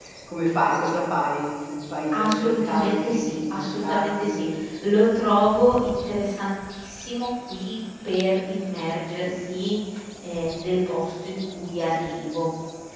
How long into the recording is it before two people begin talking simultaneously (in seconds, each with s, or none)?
2.1 s